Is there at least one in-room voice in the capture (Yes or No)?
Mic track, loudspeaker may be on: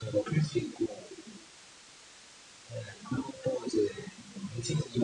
No